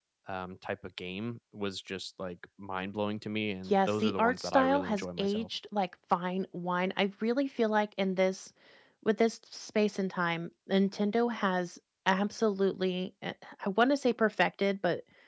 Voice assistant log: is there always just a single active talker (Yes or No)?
No